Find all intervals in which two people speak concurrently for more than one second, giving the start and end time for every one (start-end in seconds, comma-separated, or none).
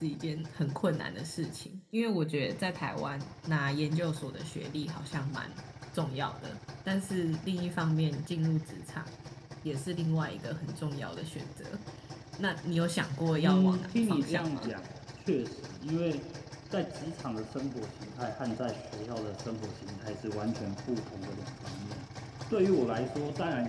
13.3-14.7